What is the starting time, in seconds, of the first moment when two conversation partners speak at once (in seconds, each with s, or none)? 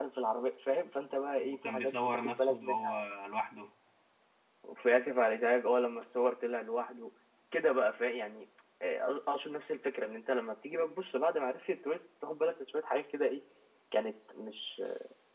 1.4 s